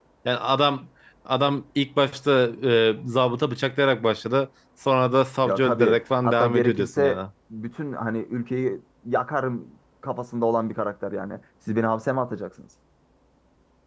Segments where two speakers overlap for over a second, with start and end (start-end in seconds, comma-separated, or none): 5.4-7.2